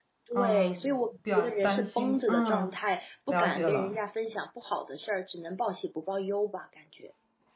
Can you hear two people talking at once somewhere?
Yes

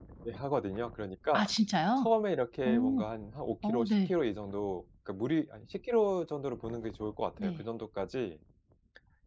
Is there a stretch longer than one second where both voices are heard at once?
No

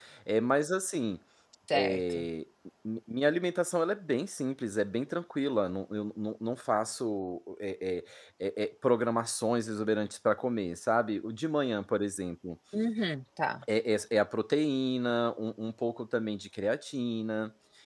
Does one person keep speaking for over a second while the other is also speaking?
No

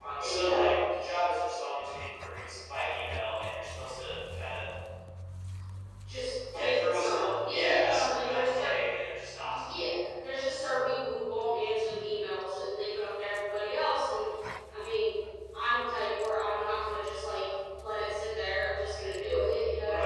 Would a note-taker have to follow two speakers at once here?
Yes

